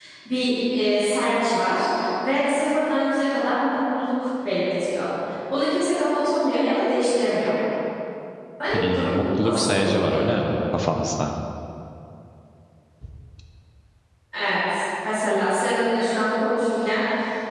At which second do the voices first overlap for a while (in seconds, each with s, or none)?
8.7 s